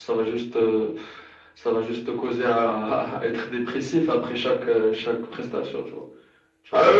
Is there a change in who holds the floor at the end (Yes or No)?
Yes